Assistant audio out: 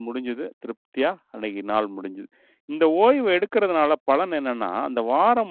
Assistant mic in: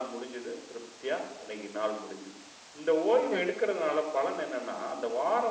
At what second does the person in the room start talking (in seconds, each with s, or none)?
3.3 s